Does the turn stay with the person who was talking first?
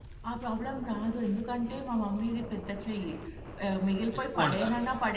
Yes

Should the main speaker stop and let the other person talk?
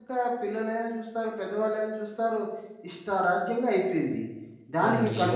Yes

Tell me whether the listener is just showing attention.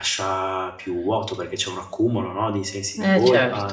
No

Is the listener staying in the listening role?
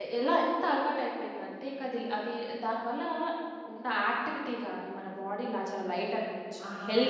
Yes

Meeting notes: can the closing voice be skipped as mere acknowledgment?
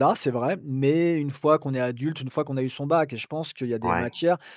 Yes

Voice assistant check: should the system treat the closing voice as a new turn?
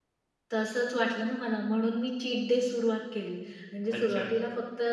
No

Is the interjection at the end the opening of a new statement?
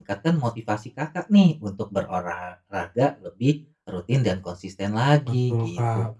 Yes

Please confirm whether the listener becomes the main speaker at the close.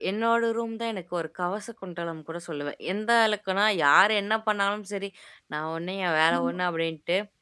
No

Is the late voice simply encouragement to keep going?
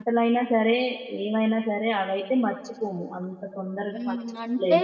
No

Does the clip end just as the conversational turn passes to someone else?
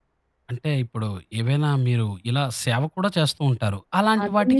Yes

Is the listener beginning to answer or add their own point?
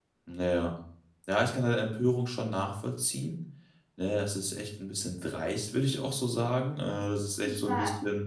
No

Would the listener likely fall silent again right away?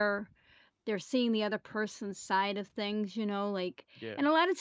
Yes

